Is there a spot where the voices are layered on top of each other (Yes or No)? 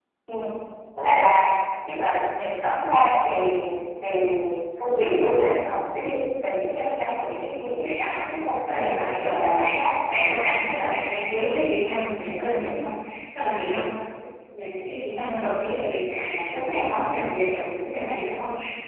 Yes